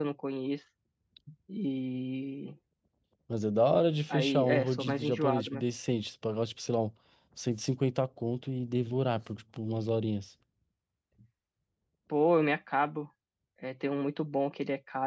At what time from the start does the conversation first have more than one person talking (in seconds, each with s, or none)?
4.1 s